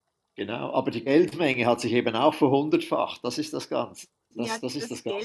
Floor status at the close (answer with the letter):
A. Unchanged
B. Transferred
B